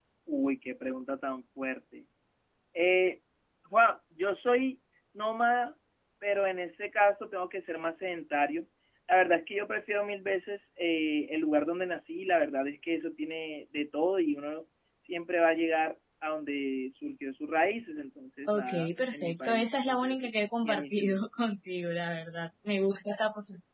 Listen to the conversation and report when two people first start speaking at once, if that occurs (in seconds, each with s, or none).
18.5 s